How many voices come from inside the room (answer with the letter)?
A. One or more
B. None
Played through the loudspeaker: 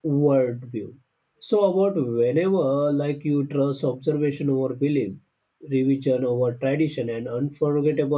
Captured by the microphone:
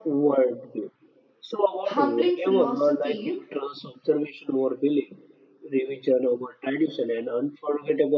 A